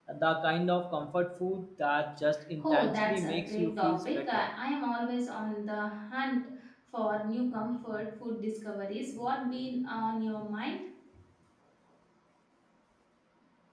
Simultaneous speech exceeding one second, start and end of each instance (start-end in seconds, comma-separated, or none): 2.6-4.5